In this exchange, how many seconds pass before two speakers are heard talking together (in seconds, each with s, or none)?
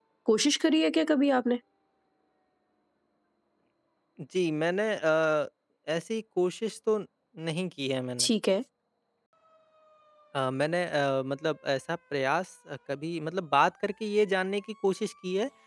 none